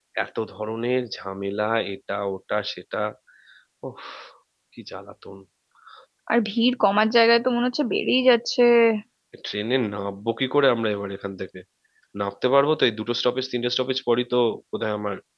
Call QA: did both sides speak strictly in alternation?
Yes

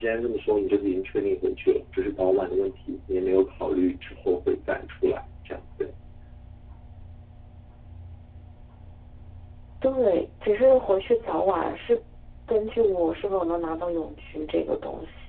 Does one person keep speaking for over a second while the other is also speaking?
No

